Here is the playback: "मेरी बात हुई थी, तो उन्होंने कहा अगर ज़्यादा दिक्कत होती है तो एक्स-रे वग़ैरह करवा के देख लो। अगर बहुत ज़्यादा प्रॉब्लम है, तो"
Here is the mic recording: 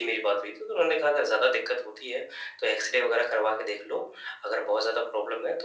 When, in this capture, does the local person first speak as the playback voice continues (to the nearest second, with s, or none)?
none